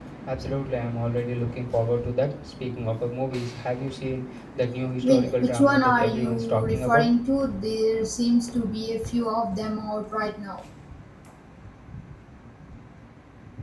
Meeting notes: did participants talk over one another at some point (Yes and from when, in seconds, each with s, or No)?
Yes, from 5.0 s